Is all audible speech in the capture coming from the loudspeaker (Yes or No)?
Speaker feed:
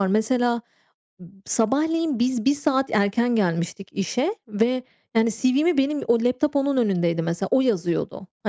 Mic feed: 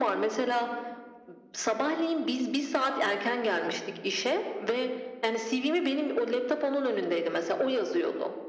No